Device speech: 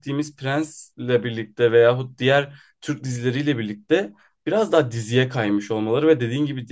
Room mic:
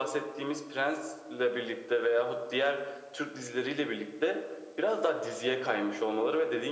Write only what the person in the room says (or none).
none